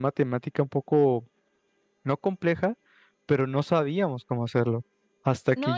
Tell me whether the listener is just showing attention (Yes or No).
No